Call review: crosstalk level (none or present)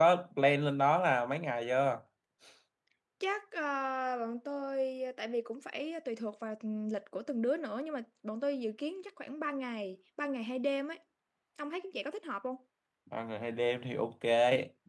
none